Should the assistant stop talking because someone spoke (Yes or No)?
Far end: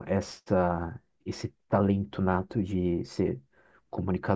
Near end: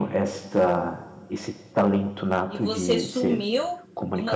Yes